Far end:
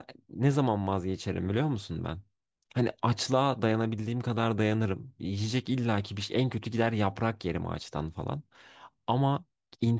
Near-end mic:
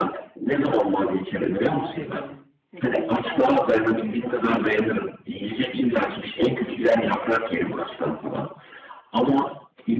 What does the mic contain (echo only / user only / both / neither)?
both